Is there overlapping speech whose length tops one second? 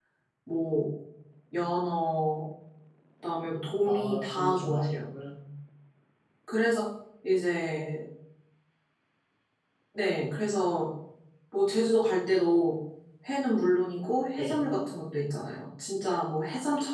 Yes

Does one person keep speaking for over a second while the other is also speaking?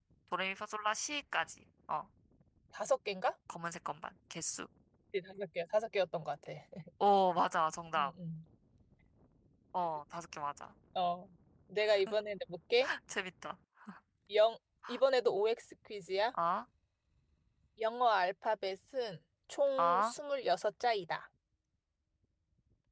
No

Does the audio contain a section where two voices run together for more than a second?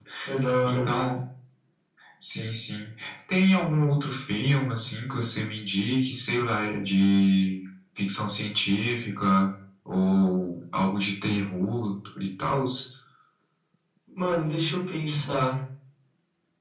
No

